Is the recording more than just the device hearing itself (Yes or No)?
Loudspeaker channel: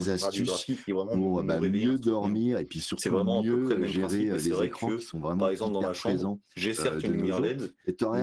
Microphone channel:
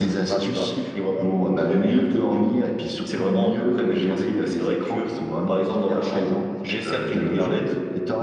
No